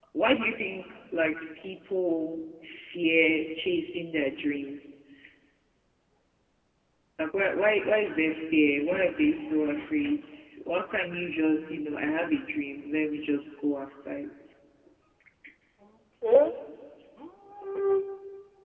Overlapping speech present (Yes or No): No